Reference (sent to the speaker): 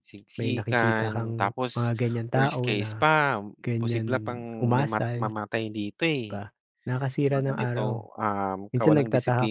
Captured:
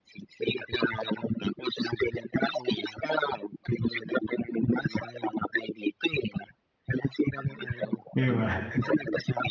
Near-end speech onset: 8.1 s

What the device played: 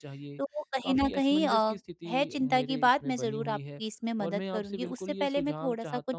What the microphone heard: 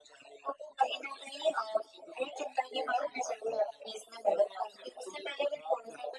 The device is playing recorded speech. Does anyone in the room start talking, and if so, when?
none

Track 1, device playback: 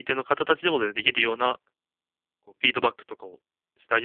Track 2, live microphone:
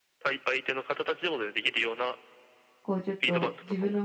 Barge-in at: 2.8 s

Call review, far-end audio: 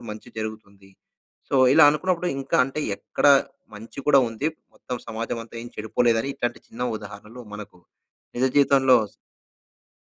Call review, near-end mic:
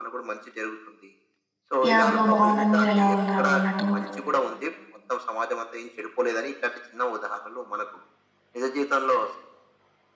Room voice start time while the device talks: 1.9 s

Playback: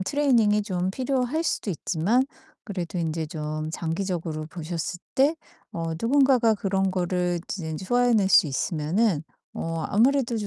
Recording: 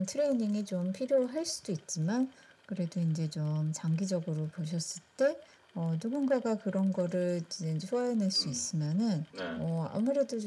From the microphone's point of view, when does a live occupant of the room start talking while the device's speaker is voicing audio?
8.3 s

